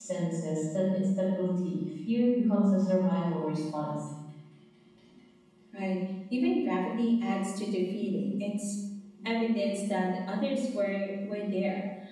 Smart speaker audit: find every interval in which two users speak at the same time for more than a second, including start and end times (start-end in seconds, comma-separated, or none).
none